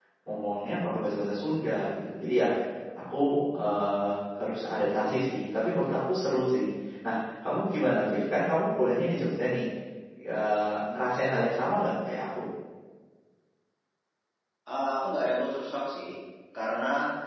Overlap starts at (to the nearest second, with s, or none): none